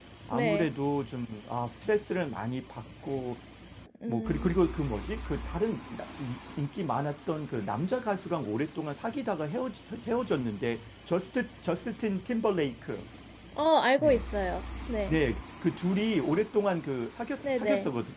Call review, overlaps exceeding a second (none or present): none